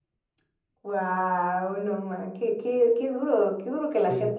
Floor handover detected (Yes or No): Yes